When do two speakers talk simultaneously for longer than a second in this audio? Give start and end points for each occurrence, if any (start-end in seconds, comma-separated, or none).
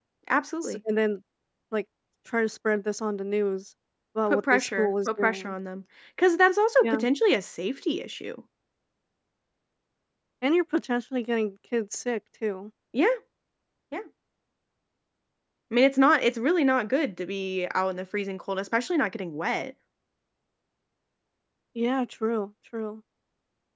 4.3-5.6